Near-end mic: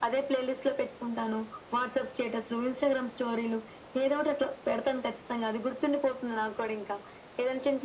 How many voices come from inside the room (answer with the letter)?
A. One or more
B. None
B